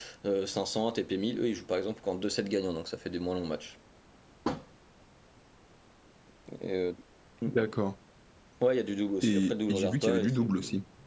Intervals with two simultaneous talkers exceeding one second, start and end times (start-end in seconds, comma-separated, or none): 9.2-10.5